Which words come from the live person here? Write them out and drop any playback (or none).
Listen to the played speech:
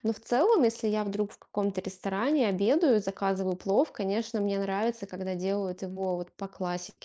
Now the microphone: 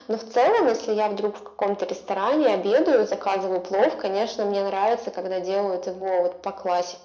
none